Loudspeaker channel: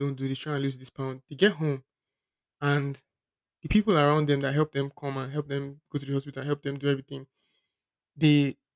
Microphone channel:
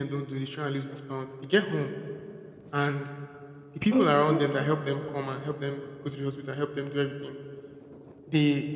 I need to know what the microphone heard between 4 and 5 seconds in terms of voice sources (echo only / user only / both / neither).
both